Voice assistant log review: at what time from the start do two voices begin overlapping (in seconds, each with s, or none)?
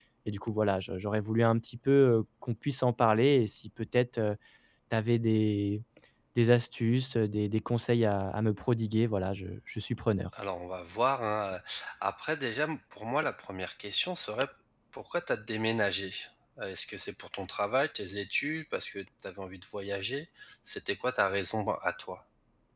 none